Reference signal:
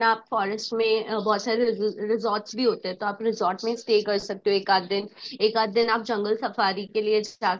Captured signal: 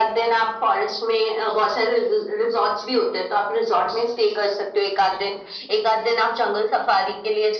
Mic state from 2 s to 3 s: echo only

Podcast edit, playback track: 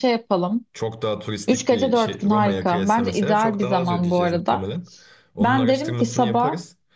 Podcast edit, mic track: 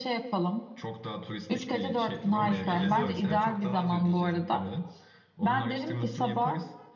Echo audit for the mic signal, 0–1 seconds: echo only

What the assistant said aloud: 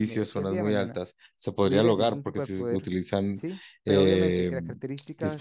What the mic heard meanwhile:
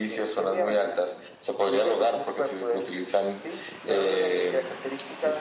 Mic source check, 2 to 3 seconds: echo only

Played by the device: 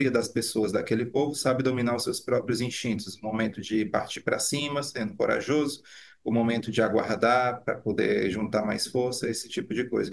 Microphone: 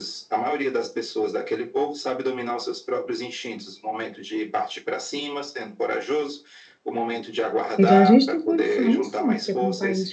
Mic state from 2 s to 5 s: echo only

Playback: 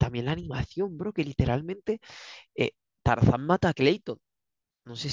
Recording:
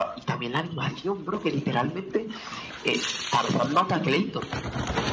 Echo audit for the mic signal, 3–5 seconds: echo only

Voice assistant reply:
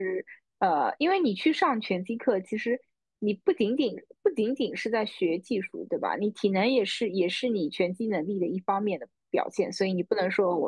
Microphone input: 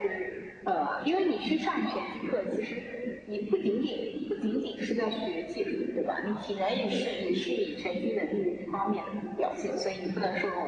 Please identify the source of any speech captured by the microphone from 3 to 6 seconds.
echo only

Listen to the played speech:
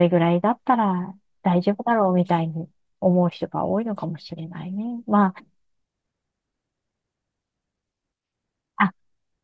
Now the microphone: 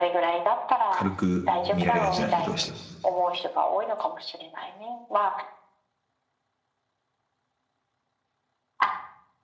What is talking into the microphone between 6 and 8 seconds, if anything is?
neither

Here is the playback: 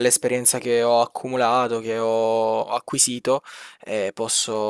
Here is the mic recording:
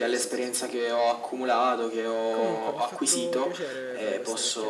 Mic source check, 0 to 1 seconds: both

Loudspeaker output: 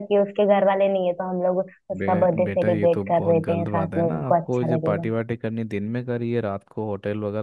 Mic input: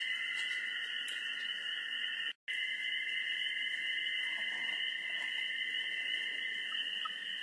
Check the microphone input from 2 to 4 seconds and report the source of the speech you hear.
neither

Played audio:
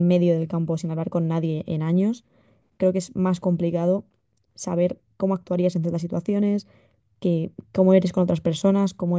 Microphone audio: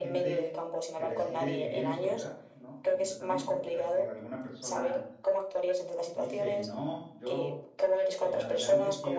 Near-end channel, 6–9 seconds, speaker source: both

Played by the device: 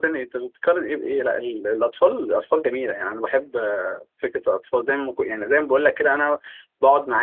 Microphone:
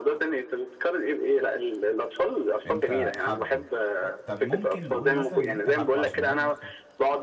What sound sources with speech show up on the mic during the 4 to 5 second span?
both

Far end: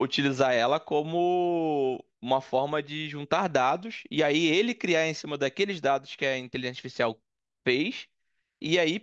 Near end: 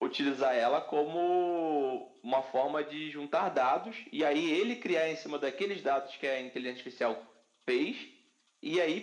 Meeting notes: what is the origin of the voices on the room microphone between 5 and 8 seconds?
echo only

